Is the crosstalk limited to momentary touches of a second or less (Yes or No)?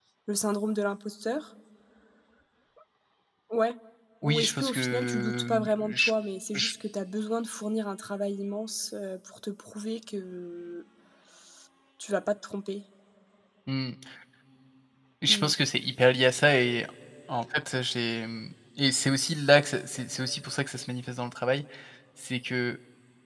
No